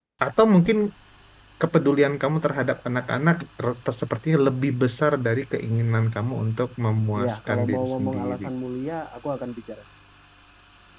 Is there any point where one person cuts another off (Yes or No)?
Yes